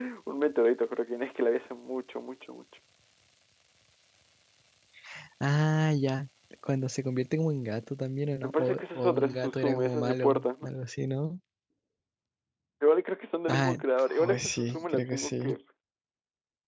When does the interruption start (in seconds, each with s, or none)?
8.4 s